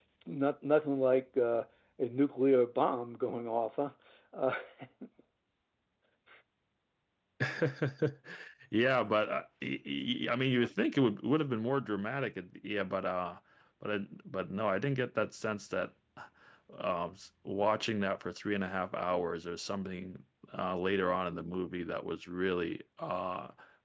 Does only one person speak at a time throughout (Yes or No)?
Yes